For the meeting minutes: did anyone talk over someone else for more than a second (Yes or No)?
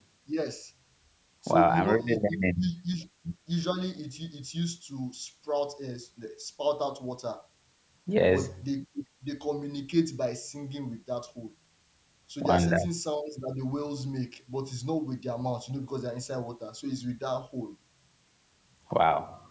Yes